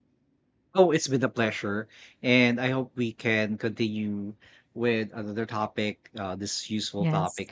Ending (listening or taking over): listening